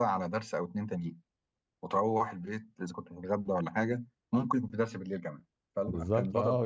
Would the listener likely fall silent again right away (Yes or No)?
No